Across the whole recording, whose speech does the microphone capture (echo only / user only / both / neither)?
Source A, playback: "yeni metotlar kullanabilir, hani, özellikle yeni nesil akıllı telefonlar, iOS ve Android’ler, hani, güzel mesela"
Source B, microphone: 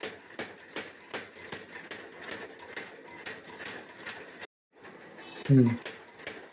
user only